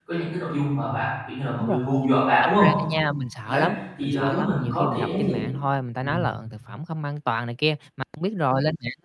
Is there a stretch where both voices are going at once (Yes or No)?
Yes